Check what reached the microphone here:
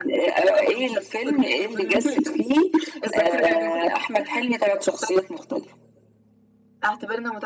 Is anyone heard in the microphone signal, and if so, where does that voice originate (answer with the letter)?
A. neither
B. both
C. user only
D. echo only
D